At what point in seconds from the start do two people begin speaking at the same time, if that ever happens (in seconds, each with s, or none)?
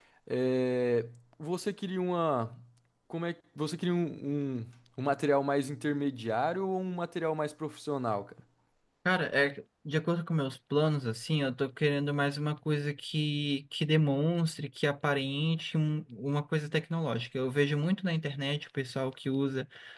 none